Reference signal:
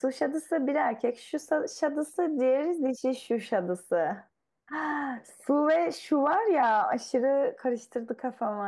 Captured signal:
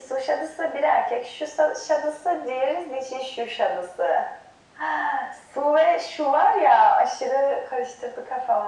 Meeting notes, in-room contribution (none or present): none